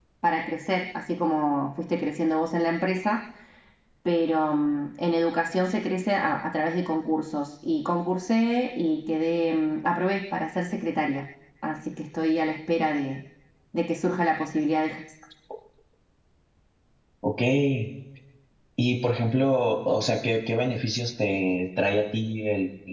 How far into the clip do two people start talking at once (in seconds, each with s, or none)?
none